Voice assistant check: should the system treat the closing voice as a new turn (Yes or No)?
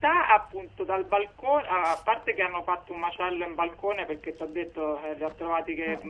No